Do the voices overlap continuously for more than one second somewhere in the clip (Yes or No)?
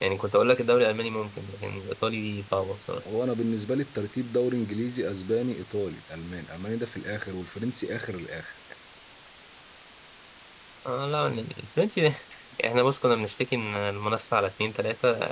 No